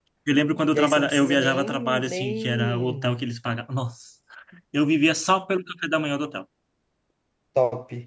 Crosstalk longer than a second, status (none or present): present